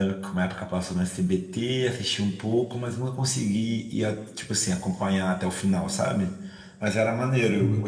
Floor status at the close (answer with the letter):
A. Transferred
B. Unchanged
B